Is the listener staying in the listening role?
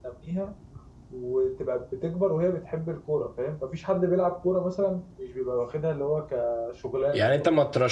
No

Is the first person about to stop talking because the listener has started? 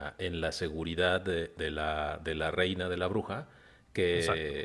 No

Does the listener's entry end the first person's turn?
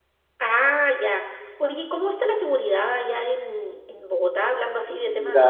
Yes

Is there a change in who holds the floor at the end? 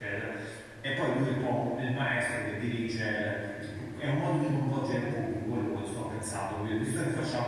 No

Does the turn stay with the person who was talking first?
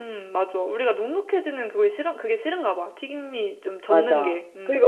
No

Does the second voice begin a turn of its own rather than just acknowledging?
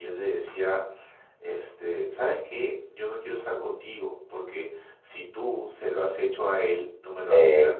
Yes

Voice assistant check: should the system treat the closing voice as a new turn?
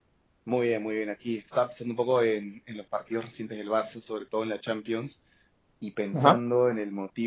No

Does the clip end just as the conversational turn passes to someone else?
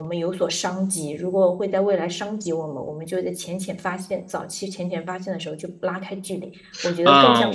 Yes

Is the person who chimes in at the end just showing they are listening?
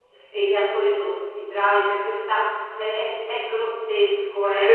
Yes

